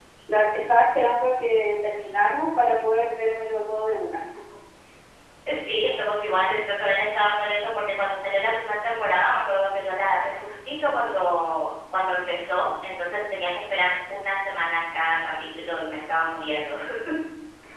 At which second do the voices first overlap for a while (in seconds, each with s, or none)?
none